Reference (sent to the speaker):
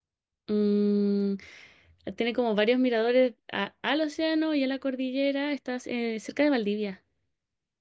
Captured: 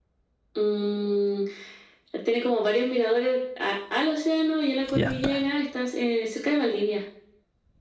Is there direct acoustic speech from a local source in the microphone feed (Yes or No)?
Yes